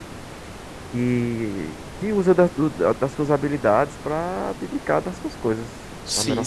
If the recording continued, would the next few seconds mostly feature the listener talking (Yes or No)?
Yes